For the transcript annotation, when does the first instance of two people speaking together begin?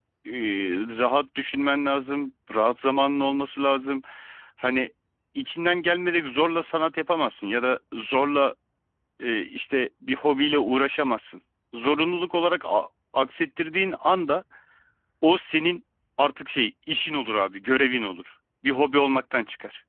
none

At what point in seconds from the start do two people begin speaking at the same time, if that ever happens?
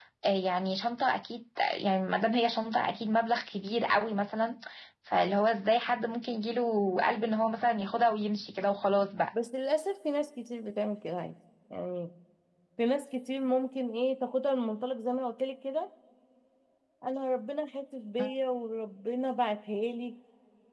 none

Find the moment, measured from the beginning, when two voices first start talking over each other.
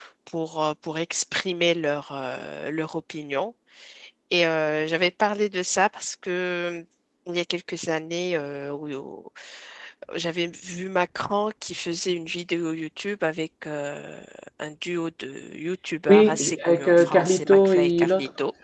16.1 s

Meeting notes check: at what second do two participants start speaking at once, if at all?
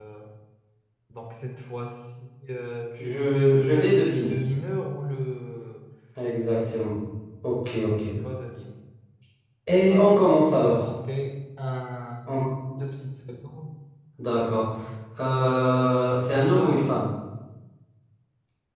3.0 s

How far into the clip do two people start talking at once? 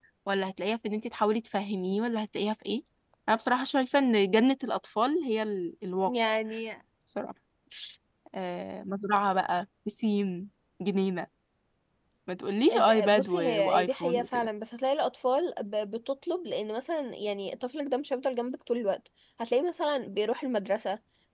12.9 s

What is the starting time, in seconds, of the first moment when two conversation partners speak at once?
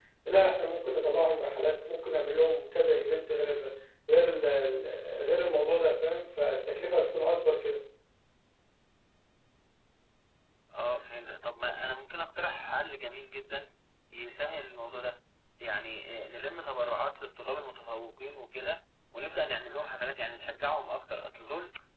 none

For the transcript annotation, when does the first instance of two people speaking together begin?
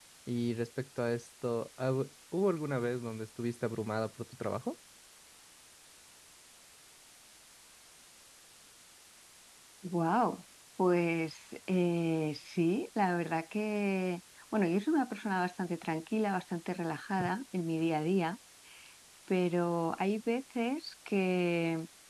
none

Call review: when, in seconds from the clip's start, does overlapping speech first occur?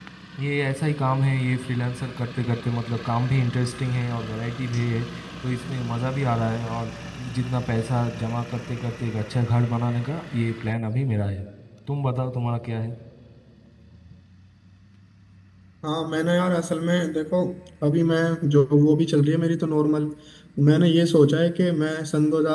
none

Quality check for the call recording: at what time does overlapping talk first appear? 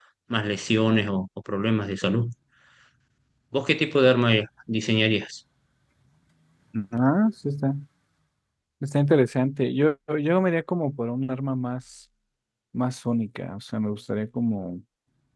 none

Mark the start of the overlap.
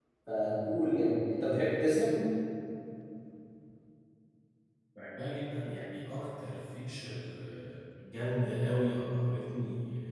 none

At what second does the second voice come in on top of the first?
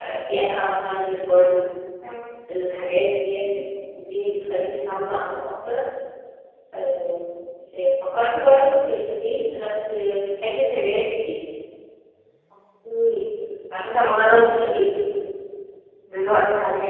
none

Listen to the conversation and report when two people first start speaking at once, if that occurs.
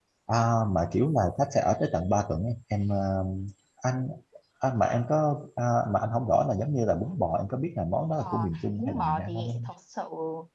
8.2 s

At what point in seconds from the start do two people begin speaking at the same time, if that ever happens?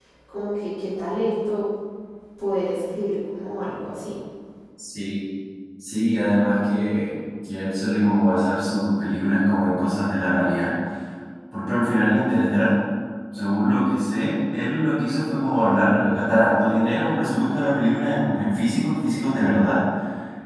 none

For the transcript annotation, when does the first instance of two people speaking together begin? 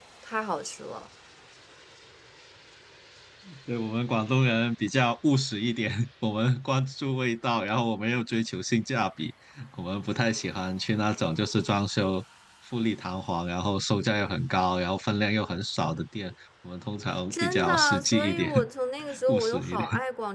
17.3 s

